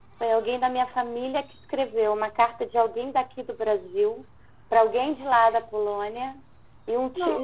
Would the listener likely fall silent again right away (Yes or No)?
Yes